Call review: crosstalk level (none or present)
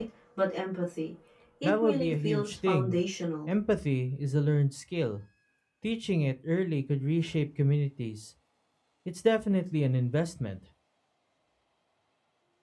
present